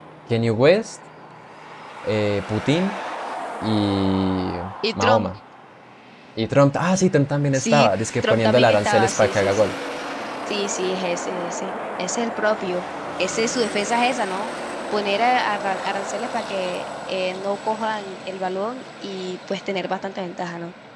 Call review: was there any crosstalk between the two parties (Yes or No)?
Yes